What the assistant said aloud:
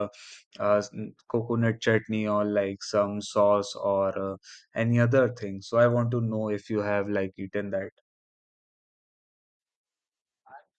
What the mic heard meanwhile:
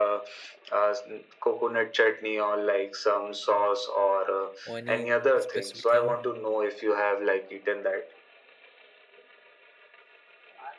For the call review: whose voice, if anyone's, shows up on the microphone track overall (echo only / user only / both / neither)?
both